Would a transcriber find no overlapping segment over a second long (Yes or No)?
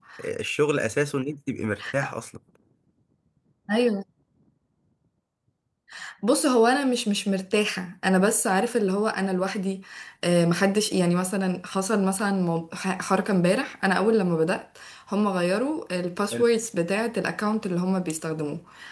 Yes